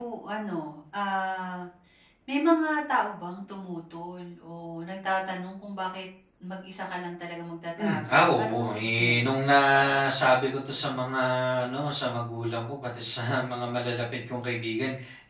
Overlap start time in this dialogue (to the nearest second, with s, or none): 8 s